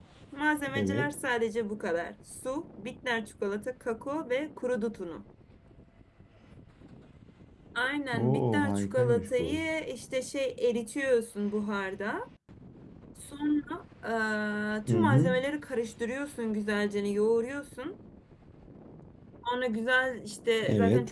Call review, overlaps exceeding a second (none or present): present